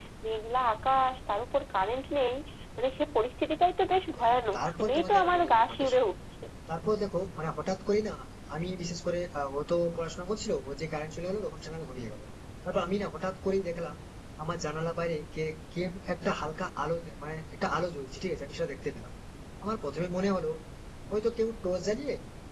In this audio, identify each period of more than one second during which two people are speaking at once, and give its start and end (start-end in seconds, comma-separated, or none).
4.2-6.0